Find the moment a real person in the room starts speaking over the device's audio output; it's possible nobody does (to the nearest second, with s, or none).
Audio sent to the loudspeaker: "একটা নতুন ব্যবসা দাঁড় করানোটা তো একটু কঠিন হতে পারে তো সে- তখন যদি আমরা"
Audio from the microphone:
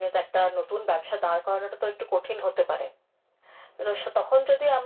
none